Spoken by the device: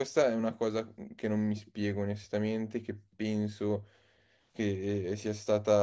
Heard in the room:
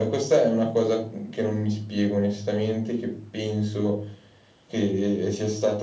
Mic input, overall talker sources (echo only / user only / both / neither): echo only